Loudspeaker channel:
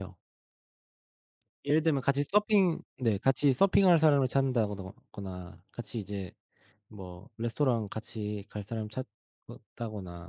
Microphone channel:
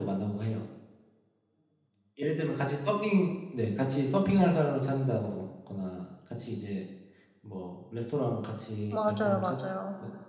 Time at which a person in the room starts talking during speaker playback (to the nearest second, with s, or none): 9 s